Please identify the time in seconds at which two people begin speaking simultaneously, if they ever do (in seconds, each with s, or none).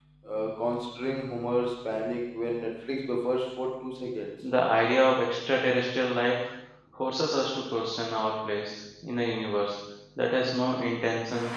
none